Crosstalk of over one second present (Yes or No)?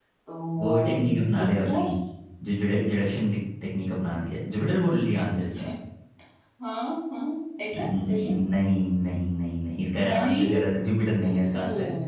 Yes